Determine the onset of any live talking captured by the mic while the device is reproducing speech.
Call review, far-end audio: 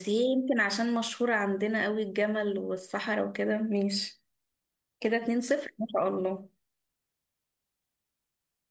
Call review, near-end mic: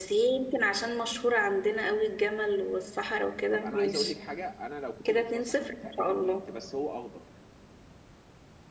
3.5 s

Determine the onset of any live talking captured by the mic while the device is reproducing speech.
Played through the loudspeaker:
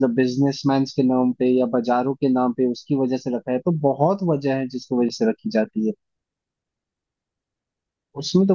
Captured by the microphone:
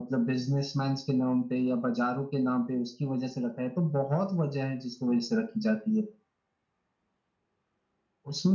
none

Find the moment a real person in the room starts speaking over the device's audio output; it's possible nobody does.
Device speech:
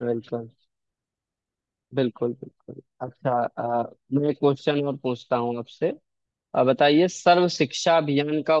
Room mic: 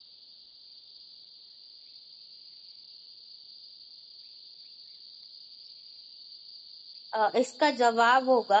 7.1 s

